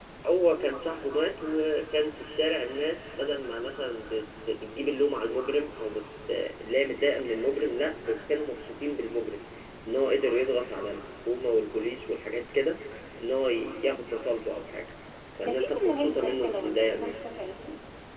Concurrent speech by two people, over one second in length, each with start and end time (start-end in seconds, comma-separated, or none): 15.4-17.2